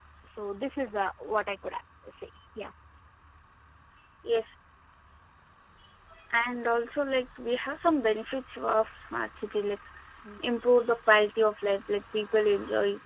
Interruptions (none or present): none